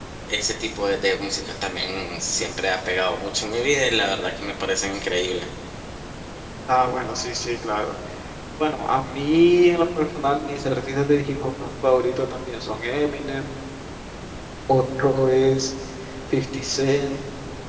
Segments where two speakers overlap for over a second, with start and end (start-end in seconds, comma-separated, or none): none